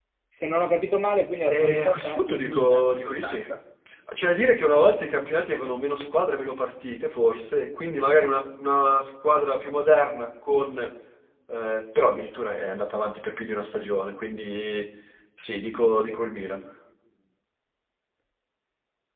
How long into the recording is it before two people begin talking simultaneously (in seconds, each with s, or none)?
1.5 s